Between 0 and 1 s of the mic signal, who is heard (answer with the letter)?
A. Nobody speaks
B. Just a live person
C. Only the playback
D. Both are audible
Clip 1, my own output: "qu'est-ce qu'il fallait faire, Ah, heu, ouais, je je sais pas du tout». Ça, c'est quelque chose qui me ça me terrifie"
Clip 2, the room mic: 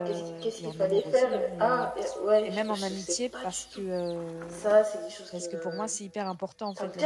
D